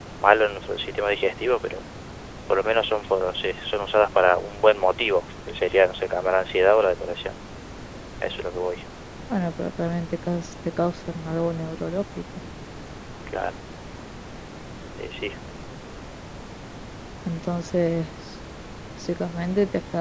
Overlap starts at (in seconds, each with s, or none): none